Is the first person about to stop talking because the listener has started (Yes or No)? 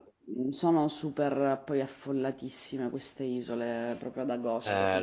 Yes